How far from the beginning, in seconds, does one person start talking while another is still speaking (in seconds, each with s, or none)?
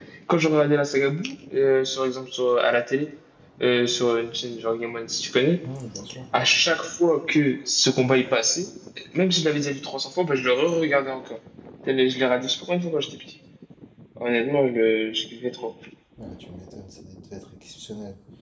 none